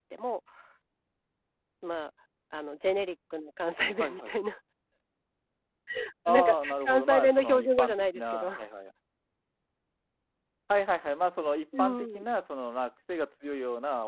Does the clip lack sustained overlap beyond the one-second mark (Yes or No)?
No